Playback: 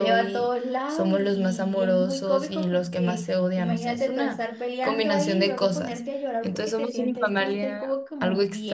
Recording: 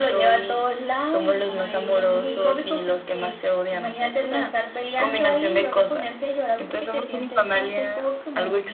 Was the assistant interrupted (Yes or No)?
Yes